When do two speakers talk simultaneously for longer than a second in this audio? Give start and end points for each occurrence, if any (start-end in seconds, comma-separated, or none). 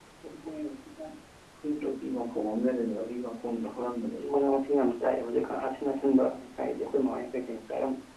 none